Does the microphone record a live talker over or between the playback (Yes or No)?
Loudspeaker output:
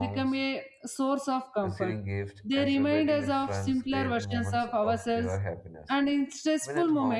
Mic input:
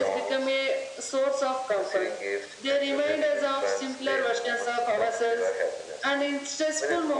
No